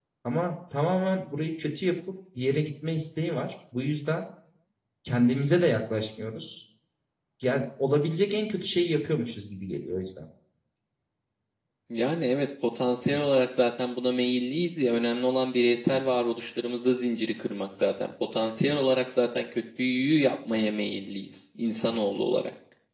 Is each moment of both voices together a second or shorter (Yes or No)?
Yes